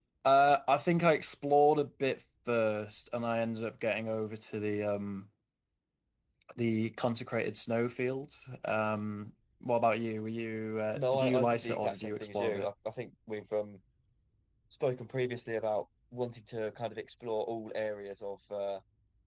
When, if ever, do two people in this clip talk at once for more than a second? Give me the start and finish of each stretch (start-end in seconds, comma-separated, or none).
10.9-12.7